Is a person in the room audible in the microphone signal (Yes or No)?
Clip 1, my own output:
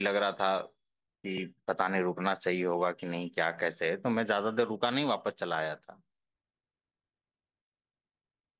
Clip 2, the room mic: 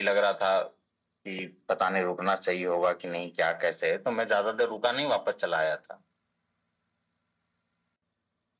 No